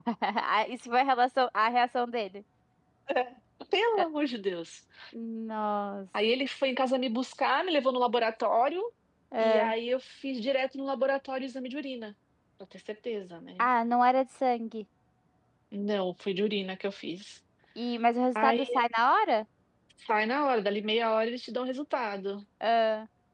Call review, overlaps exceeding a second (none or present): none